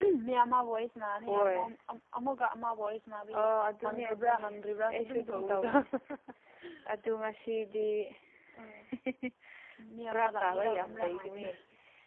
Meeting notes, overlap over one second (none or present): present